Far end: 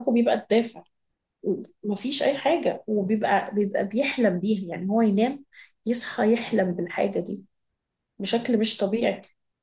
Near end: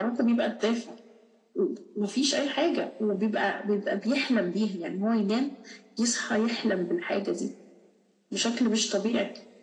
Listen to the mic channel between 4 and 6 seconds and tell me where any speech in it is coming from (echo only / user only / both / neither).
echo only